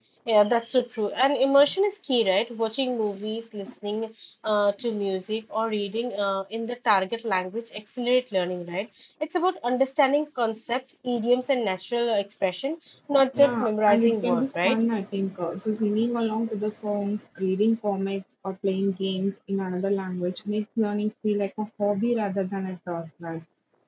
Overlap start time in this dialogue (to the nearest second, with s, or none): 13 s